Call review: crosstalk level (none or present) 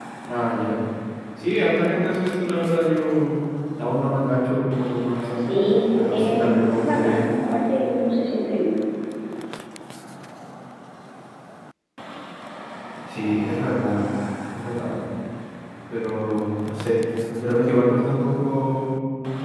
present